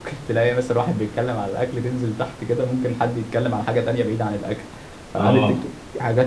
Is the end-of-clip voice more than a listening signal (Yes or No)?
No